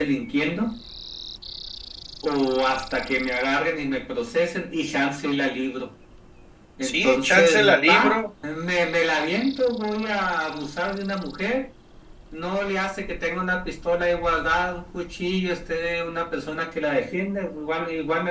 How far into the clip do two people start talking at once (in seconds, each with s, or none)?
6.8 s